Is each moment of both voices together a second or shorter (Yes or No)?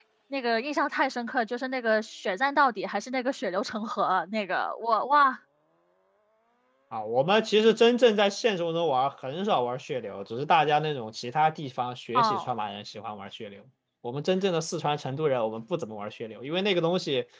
Yes